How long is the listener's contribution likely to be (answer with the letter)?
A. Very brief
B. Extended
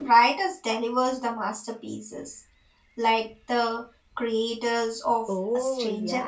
B